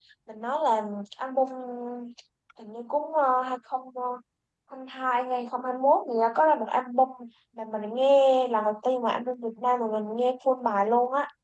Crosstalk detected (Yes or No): No